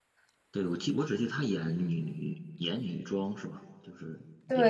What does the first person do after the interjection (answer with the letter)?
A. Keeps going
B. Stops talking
B